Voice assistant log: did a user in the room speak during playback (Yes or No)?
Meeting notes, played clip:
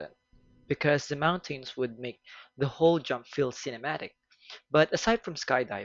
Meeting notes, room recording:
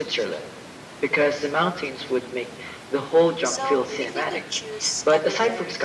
Yes